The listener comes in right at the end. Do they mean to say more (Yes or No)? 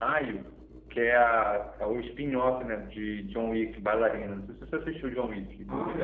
Yes